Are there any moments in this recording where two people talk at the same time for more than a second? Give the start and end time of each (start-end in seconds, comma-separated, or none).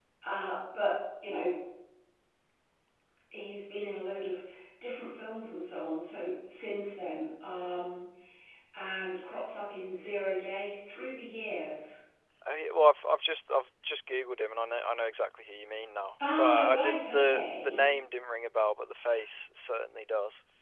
16.3-17.8